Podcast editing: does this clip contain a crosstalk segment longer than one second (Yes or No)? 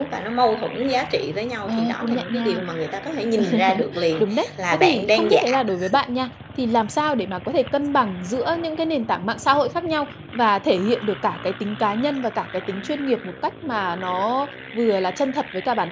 Yes